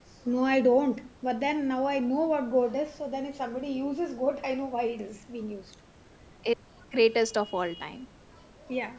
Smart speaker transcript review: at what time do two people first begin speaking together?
none

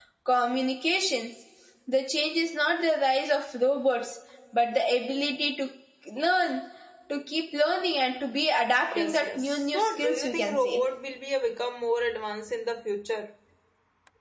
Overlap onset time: 8.9 s

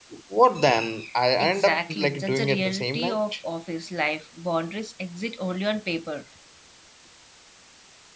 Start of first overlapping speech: 1.4 s

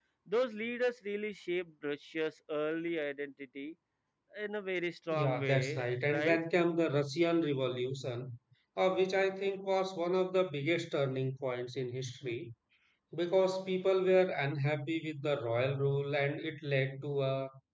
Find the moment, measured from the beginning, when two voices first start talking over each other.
5.1 s

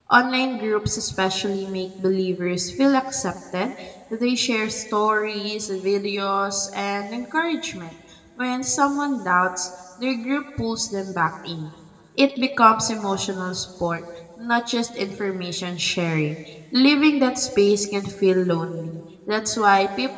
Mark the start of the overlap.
none

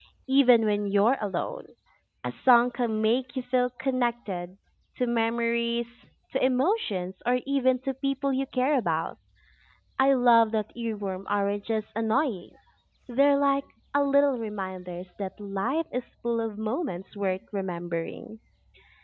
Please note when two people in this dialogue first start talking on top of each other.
none

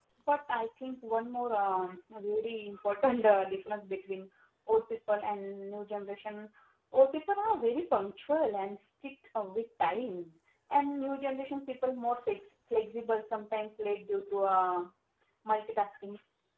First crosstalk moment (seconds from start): none

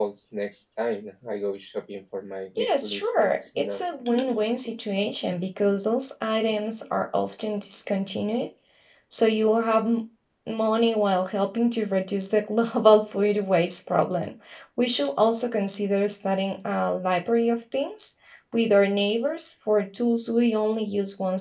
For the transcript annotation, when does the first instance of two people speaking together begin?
2.6 s

